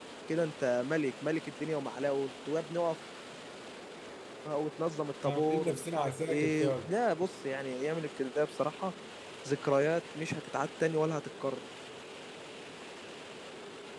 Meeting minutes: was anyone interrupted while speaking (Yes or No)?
Yes